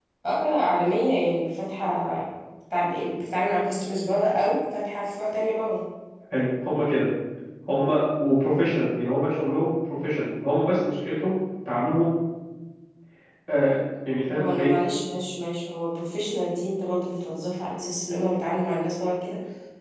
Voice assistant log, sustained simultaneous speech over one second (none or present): none